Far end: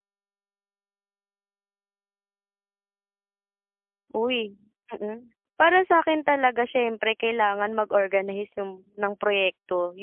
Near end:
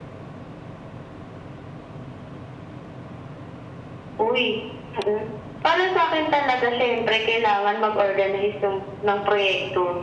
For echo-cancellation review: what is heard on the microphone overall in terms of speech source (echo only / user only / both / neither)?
echo only